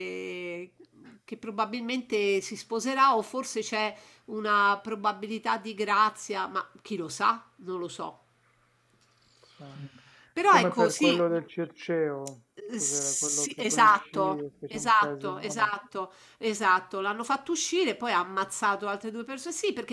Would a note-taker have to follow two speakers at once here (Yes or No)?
Yes